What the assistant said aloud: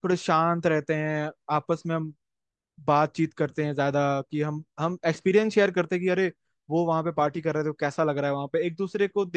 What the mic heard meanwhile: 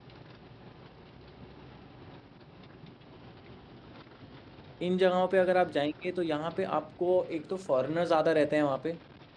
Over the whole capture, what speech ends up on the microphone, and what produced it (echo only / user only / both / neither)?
user only